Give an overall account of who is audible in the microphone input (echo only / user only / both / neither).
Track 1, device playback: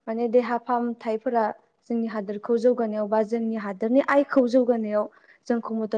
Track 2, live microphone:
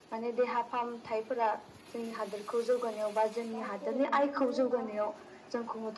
both